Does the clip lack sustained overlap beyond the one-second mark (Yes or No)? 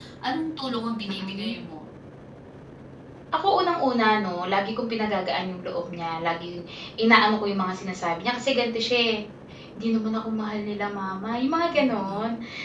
Yes